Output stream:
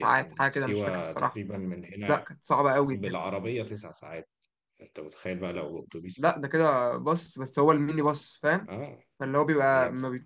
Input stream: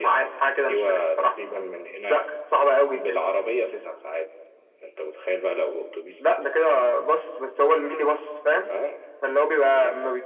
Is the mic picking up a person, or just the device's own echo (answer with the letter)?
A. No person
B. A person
A